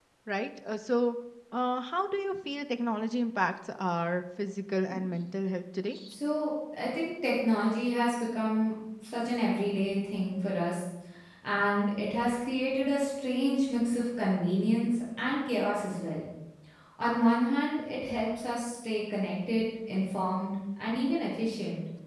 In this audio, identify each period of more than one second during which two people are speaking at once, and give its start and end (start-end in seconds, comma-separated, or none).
none